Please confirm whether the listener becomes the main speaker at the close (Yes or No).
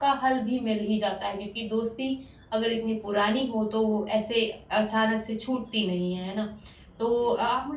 No